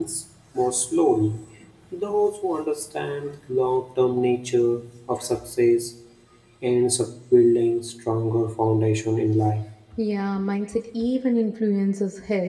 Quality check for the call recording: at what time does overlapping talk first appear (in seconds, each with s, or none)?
none